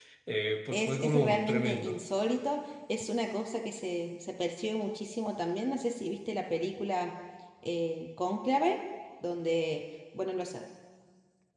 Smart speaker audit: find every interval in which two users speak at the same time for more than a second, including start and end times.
0.7-2.0

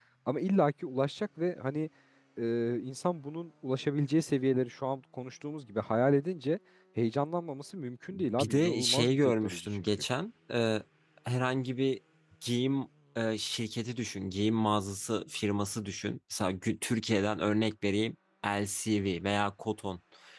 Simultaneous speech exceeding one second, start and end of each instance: 8.4-9.8

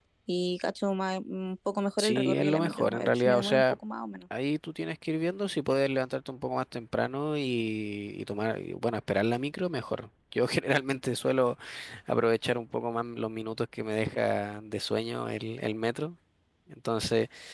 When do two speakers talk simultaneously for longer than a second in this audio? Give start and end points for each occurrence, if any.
2.0-3.6

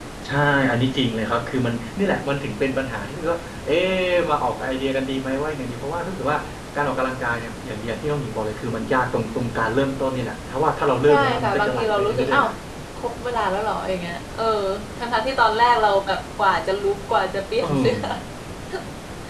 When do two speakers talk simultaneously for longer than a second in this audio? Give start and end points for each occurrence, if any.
11.1-12.5

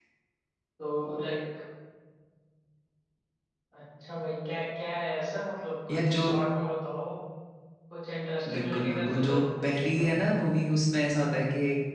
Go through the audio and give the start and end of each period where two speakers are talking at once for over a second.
8.5-10.0

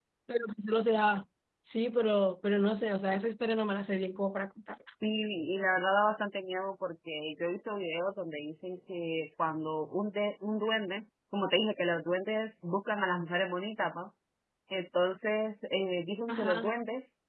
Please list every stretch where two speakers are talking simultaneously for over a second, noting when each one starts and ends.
none

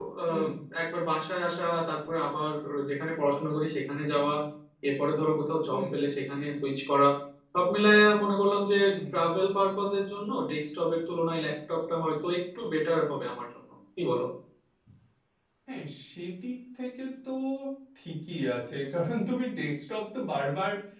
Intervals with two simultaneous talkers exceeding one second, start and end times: none

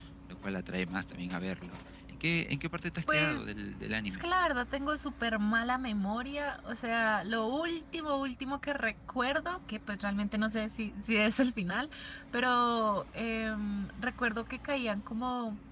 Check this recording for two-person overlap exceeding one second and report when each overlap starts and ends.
none

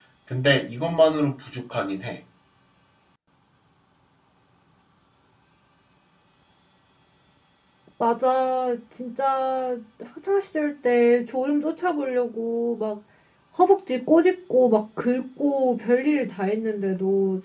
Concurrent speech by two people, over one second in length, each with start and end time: none

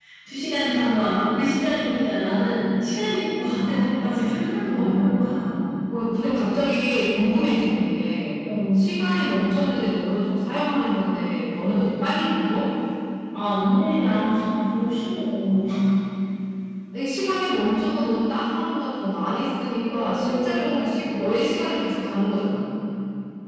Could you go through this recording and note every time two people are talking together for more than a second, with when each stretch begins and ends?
19.9-21.2

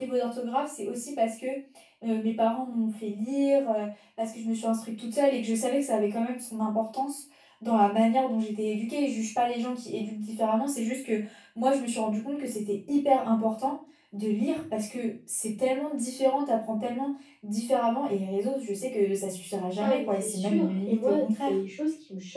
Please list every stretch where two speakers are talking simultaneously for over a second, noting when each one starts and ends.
19.8-21.5

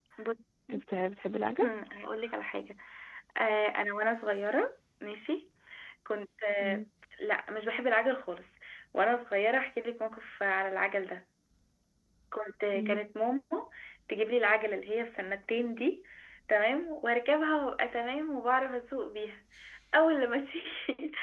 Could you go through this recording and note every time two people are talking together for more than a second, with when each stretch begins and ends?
none

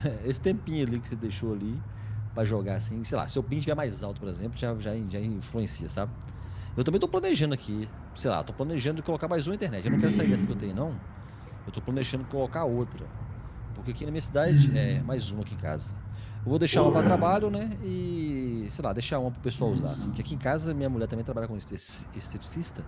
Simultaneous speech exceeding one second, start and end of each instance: none

